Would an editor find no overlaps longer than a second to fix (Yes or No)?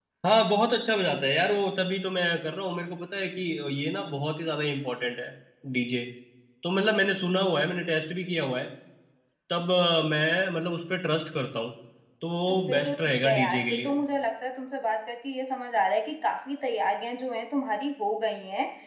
No